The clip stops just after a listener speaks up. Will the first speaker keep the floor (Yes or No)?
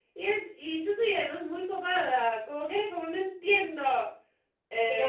No